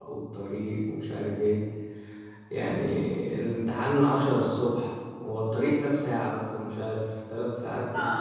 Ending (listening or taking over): taking over